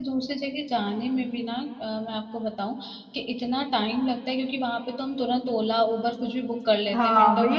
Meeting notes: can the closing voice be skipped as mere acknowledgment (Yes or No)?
No